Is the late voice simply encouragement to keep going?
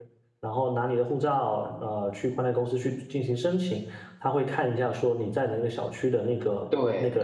Yes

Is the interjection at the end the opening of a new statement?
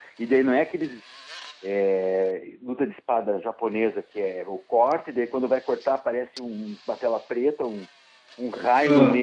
No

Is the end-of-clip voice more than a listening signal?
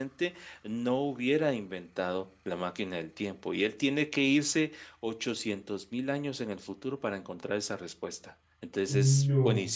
No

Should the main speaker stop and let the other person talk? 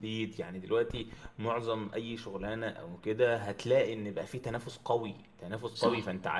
No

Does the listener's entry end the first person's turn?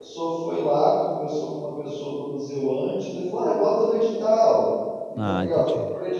No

